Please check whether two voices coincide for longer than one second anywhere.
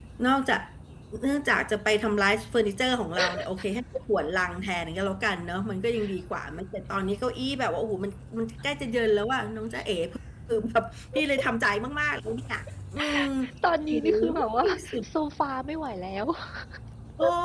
No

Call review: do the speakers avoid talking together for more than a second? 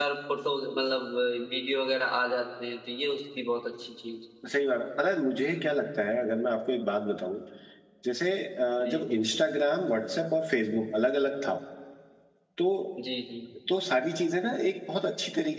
Yes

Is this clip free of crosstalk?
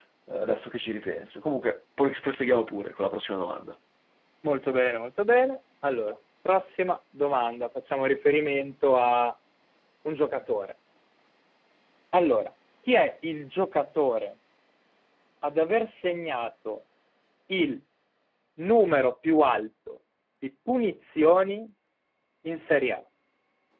Yes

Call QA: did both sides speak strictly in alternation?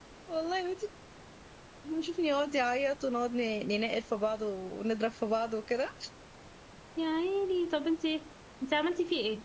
Yes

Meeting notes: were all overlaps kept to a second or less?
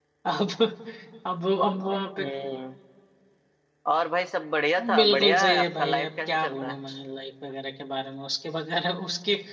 No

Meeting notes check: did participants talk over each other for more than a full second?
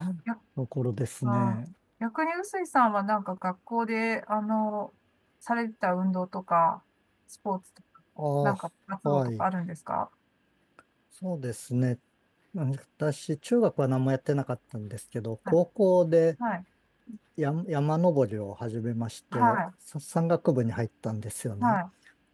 No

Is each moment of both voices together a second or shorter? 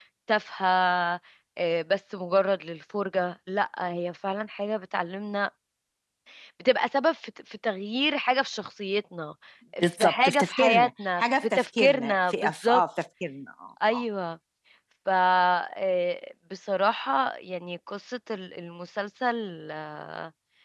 No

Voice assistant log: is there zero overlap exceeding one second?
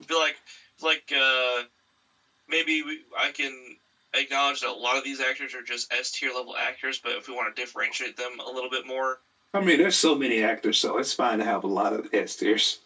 Yes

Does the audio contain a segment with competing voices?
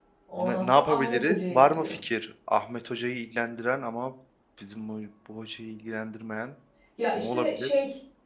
Yes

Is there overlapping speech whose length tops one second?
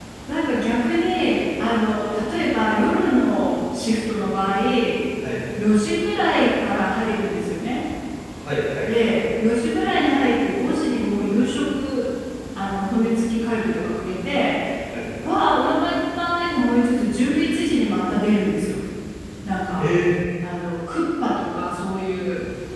No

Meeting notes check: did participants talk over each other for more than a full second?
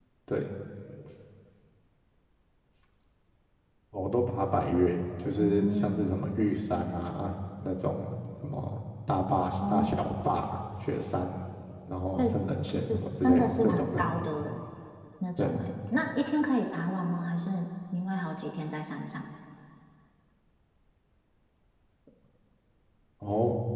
Yes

